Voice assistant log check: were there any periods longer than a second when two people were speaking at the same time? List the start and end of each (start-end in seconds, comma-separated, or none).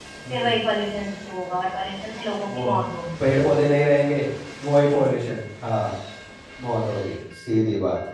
none